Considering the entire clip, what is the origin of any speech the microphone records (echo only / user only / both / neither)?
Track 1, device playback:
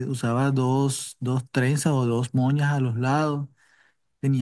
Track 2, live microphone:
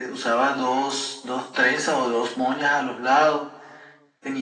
echo only